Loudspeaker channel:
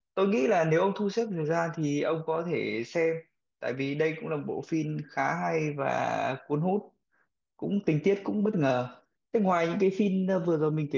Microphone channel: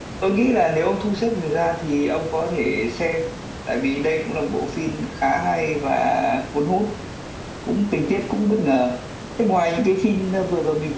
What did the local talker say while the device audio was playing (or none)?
none